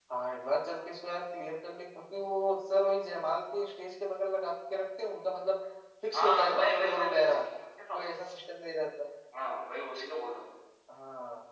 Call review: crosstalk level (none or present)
present